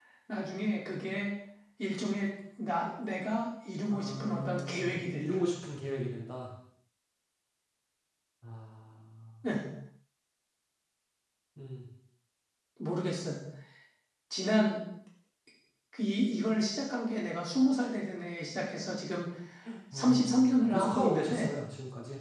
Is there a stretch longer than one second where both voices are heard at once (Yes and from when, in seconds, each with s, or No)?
Yes, from 3.9 s